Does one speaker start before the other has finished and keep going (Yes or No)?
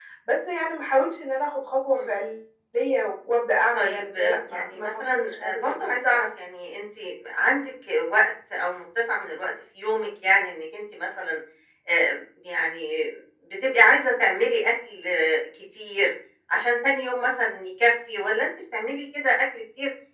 Yes